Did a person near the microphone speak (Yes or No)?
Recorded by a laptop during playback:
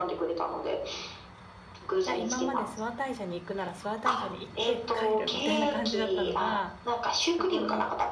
Yes